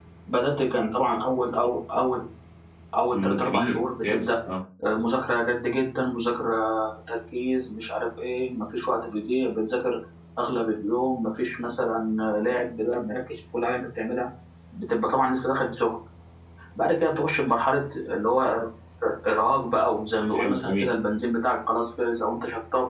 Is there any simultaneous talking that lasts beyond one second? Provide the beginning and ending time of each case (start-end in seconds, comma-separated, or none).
3.1-4.3